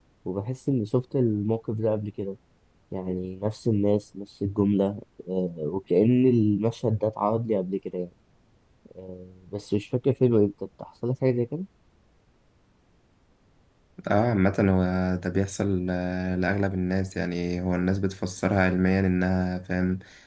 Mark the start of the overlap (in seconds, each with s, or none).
none